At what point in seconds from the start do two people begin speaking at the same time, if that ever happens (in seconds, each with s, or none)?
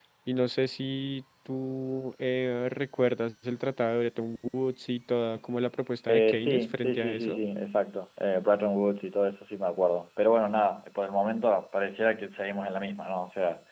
6.1 s